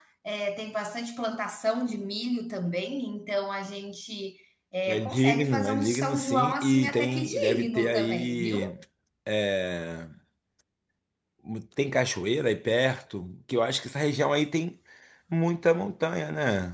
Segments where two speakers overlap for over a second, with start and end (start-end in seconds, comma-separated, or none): 4.9-8.7